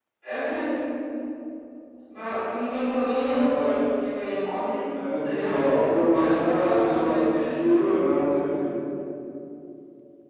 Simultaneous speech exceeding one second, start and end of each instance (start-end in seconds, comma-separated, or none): 4.9-7.7